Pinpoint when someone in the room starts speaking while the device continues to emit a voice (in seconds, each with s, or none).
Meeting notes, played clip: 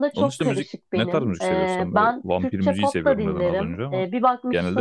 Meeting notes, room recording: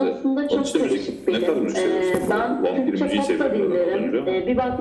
none